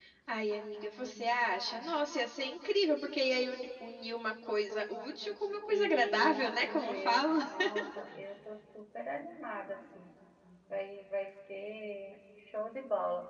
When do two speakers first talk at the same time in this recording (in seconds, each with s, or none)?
5.7 s